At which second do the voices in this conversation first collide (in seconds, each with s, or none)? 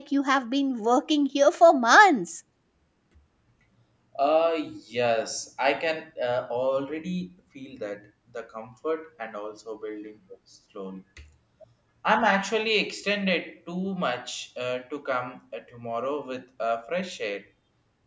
none